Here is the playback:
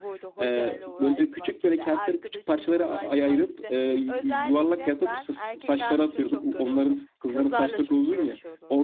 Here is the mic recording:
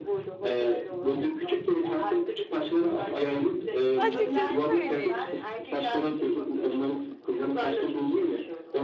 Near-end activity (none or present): present